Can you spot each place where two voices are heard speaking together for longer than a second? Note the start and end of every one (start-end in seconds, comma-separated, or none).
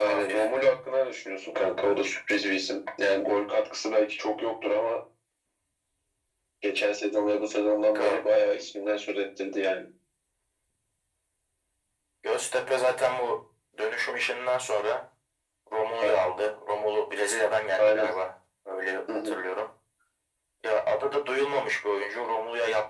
none